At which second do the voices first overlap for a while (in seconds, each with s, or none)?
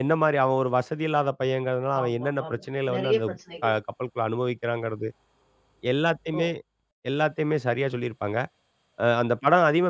1.9 s